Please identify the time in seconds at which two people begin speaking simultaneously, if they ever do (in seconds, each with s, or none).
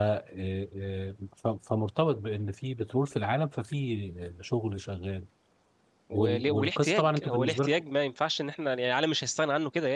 6.1 s